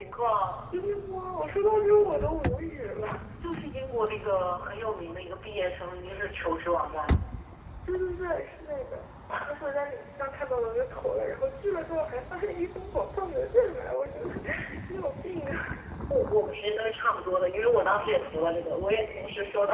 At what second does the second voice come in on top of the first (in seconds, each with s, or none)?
none